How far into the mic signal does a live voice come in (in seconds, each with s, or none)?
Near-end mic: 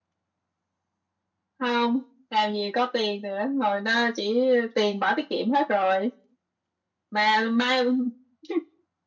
none